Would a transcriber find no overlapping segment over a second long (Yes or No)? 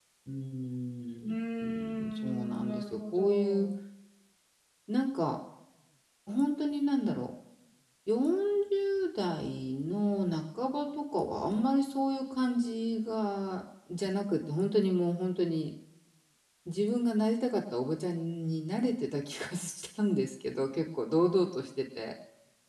No